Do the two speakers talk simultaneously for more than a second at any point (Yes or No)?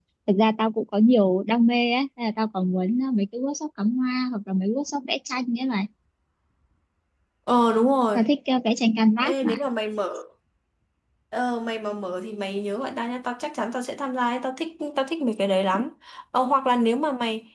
No